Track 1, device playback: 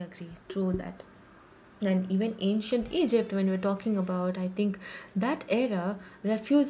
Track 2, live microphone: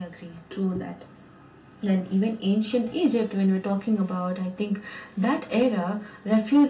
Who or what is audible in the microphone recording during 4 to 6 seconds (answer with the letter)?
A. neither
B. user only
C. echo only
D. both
C